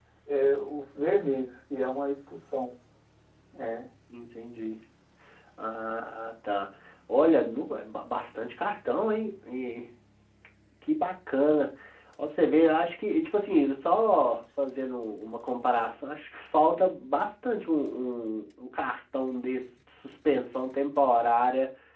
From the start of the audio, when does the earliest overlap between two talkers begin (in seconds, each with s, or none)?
none